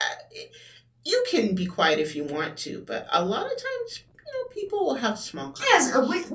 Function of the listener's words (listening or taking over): taking over